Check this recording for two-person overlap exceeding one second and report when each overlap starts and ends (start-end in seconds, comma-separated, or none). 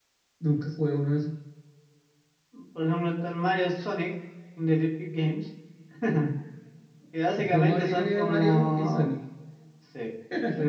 7.4-9.1